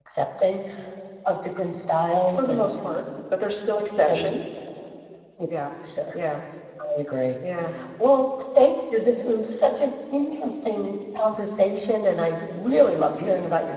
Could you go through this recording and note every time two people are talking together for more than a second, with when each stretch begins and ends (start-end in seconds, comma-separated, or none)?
none